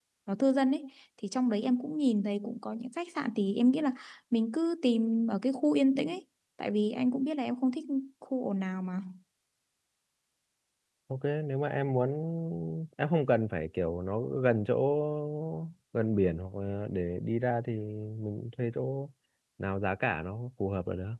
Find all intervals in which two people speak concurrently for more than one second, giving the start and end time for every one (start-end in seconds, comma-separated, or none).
none